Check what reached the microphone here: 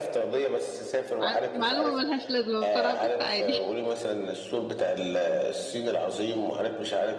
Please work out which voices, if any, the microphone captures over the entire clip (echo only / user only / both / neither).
both